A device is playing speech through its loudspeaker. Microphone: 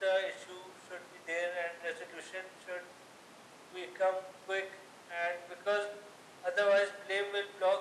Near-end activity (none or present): none